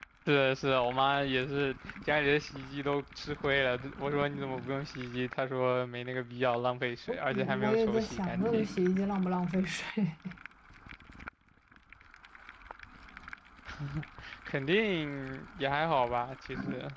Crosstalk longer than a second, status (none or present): present